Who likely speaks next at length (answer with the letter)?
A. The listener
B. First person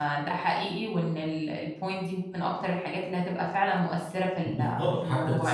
A